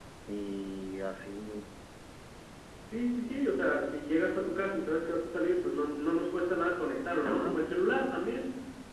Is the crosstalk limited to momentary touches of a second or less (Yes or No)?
Yes